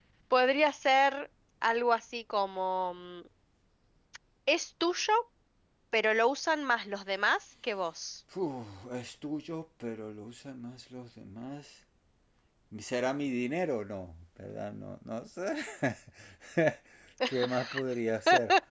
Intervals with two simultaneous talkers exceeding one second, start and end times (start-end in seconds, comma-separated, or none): none